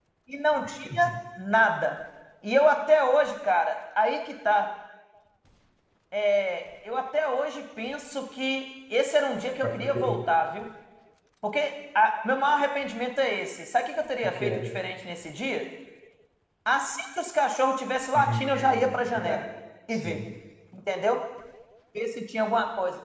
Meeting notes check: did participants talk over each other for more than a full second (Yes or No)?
Yes